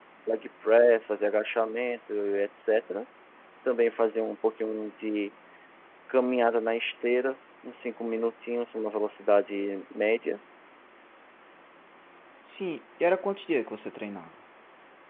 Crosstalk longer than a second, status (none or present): none